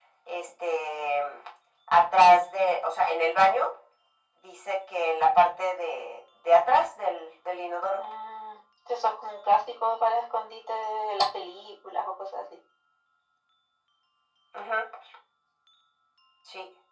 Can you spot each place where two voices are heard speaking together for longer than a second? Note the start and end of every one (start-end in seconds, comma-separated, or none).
none